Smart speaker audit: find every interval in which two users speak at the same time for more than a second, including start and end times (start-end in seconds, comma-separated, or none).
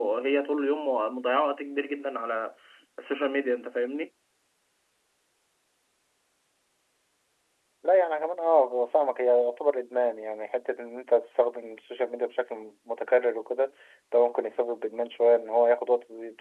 none